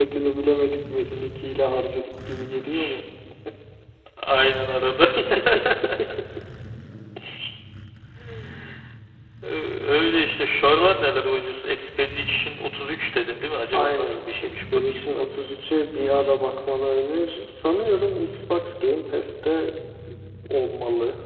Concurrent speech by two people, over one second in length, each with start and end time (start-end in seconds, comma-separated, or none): 13.7-15.2